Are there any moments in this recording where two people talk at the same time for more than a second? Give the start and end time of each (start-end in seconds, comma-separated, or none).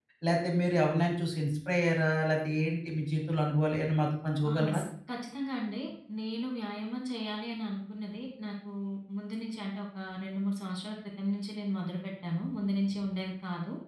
none